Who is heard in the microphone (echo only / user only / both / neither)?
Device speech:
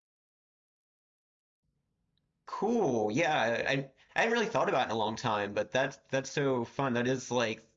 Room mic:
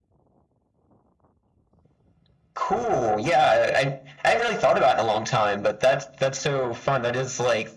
echo only